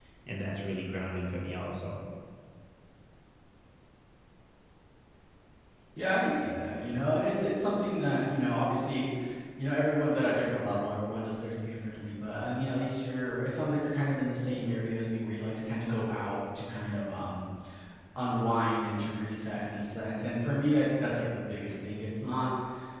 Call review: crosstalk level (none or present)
none